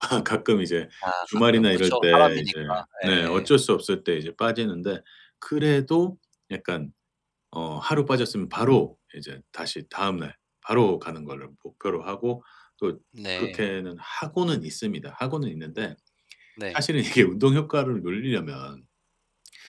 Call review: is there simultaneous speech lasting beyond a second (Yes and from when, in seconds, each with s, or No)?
Yes, from 1.3 s